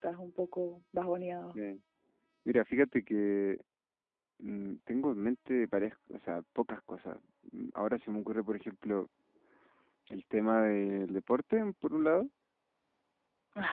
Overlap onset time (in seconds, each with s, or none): none